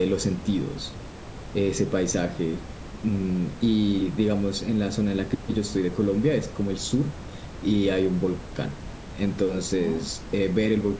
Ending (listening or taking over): listening